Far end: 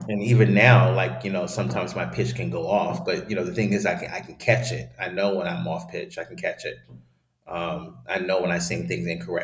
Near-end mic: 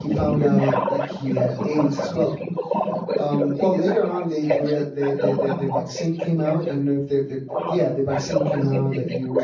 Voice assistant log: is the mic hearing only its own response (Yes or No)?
No